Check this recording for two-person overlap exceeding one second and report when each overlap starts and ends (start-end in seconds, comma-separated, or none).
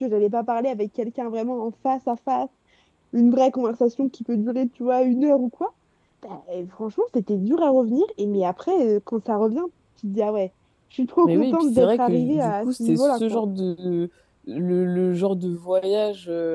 11.2-13.4